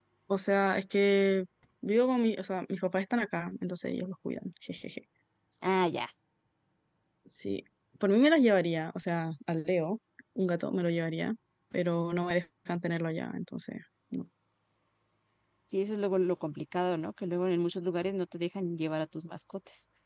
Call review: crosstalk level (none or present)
none